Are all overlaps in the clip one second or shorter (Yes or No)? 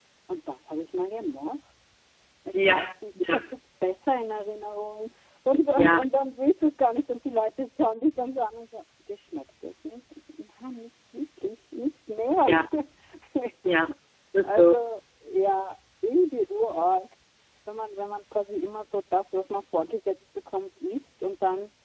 Yes